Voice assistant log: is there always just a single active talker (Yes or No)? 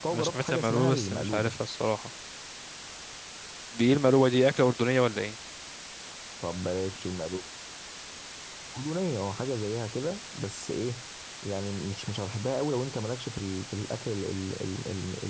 No